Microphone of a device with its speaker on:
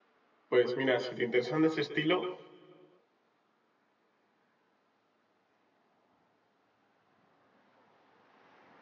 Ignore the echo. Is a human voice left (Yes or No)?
Yes